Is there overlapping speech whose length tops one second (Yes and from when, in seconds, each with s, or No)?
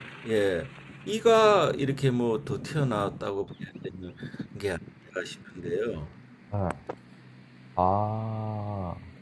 No